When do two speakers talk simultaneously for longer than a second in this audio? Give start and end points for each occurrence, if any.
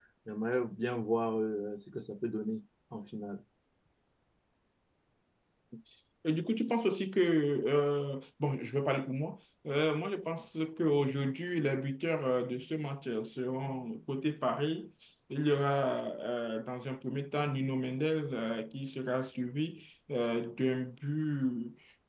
none

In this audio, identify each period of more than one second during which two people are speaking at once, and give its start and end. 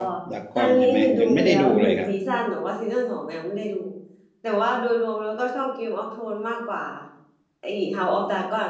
0.6-2.1

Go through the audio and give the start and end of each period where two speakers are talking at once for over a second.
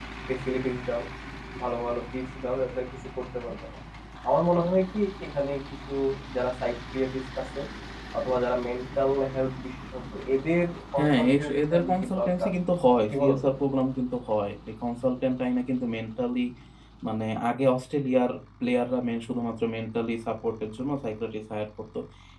11.0-12.5

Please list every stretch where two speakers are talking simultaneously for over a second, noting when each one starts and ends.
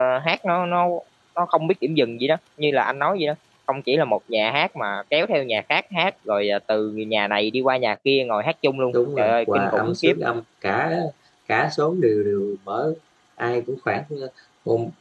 8.9-10.1

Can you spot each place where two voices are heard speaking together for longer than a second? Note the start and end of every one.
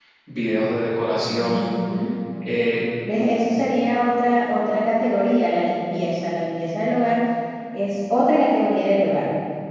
none

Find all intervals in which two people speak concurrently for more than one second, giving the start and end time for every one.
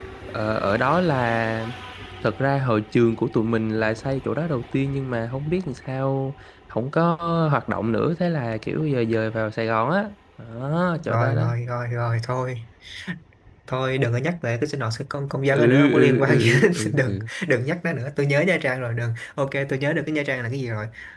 15.5-17.2

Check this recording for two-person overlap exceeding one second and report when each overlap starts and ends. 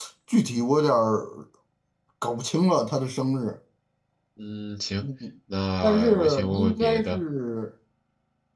5.8-7.2

